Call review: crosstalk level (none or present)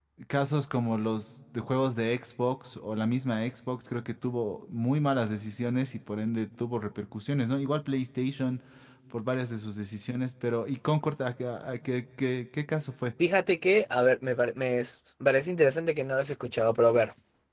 none